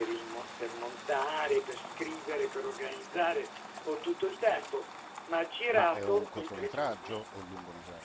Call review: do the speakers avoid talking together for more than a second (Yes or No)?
No